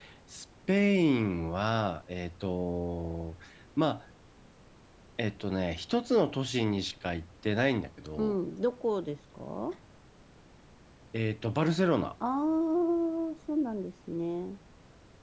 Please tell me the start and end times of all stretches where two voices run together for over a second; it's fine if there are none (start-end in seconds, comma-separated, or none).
none